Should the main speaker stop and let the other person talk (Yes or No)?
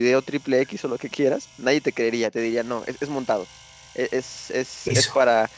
No